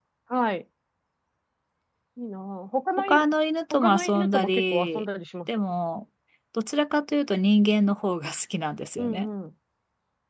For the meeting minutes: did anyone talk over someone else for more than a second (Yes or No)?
Yes